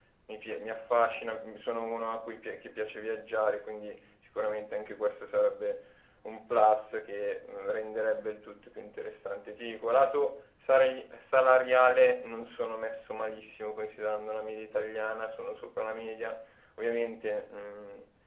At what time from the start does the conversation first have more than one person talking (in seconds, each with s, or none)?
none